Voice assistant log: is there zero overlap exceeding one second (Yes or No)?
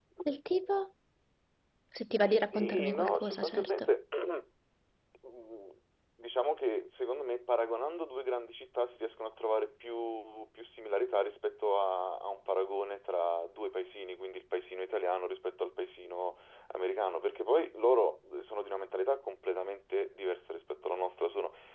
No